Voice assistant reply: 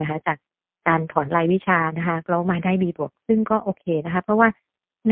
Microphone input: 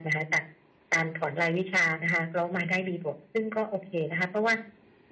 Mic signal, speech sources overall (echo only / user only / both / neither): echo only